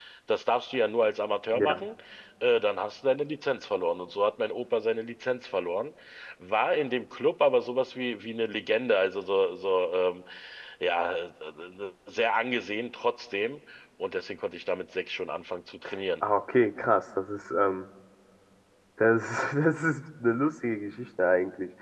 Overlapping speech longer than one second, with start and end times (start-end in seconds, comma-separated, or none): none